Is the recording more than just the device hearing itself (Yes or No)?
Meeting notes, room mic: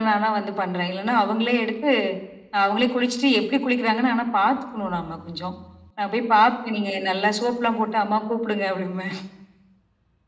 No